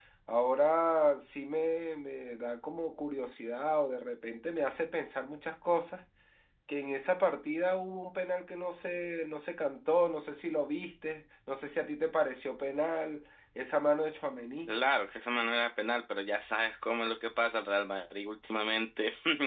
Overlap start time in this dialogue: none

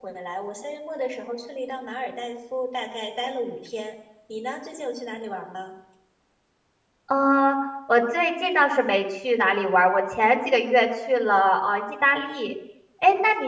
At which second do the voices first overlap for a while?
none

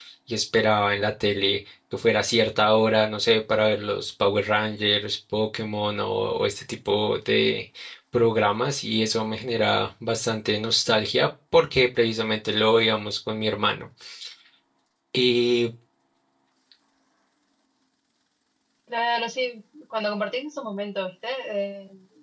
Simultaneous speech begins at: none

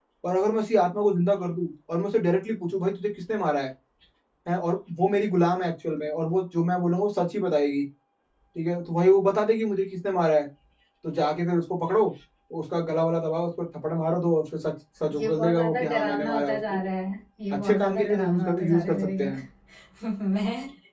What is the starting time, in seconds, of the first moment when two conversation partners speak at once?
15.2 s

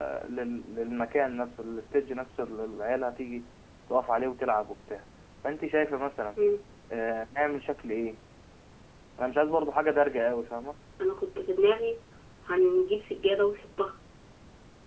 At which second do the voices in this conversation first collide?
none

